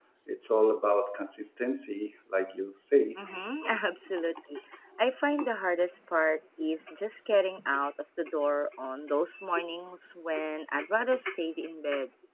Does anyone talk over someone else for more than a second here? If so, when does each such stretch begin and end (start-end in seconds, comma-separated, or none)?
none